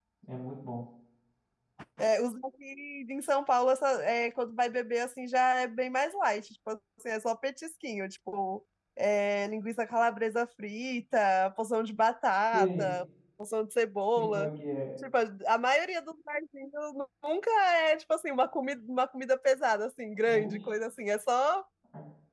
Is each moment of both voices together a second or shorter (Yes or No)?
Yes